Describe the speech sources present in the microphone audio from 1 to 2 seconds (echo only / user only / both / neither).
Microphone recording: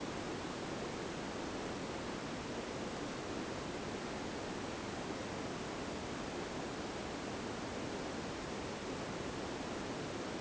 neither